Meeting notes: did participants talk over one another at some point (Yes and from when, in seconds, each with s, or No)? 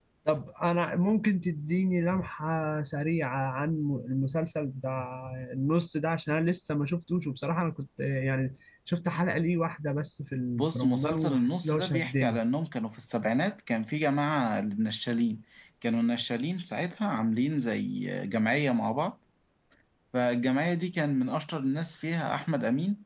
Yes, from 10.6 s